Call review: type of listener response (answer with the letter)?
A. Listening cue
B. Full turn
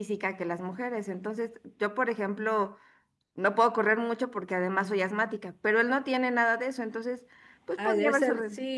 B